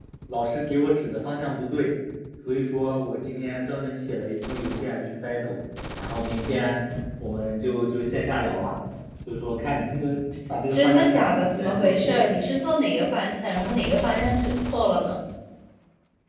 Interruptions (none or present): present